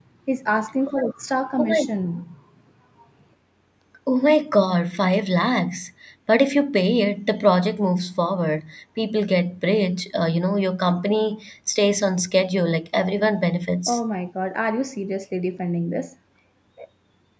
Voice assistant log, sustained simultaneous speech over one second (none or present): none